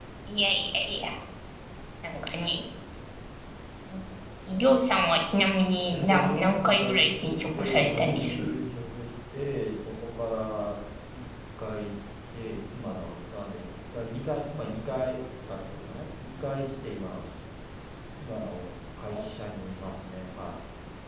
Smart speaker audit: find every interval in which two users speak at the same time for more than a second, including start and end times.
5.9-8.5

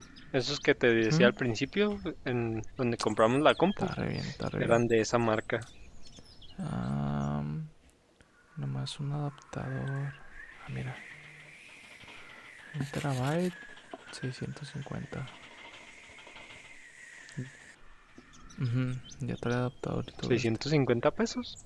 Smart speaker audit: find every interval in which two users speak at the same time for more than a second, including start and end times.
none

